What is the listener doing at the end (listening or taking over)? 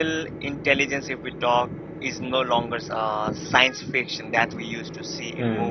listening